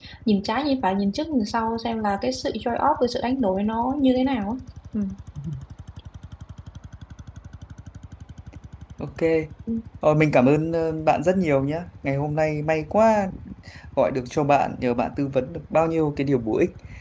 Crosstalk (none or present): none